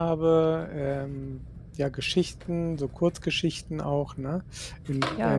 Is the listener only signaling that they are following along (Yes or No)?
No